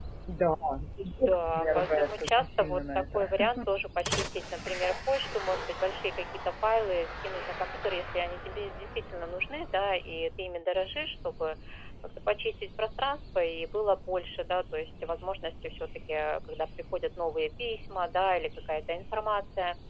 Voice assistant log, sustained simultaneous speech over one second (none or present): present